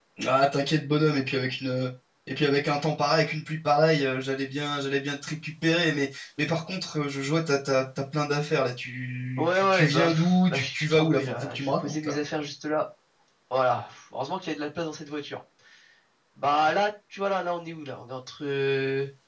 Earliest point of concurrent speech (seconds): 9.4 s

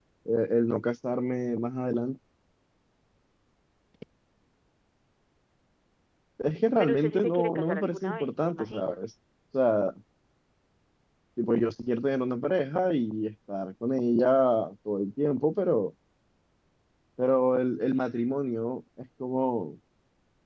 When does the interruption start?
6.8 s

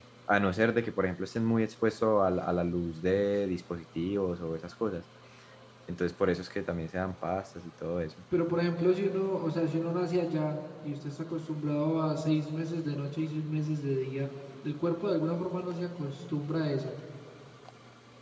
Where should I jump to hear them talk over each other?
none

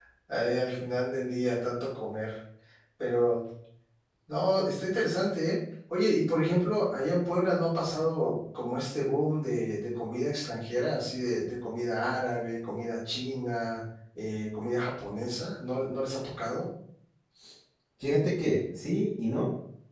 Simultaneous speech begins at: none

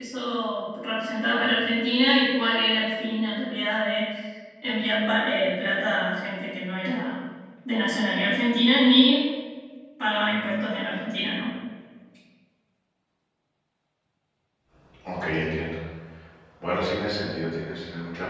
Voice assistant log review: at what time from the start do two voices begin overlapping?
none

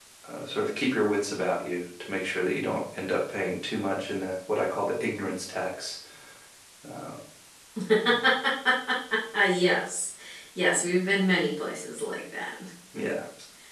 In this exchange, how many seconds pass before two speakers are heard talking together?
none

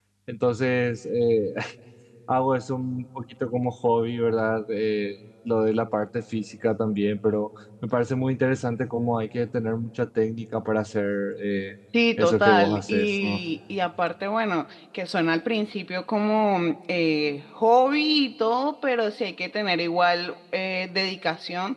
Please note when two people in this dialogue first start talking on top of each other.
12.2 s

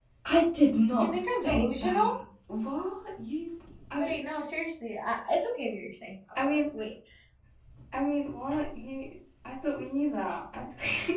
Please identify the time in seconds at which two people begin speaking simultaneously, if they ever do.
0.9 s

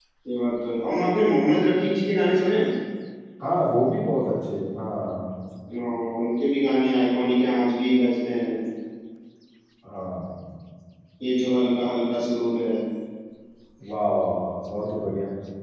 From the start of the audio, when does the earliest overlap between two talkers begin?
none

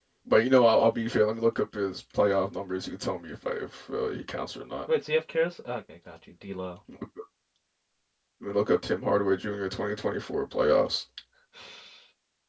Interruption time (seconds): none

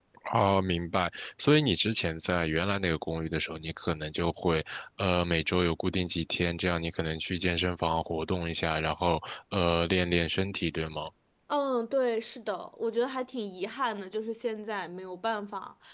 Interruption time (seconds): none

